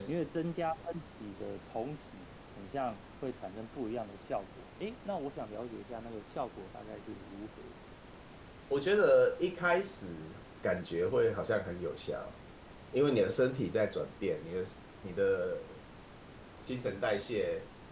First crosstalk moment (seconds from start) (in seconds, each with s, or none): none